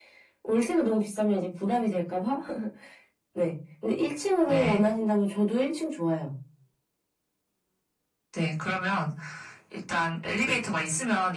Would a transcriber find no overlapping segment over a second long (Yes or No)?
Yes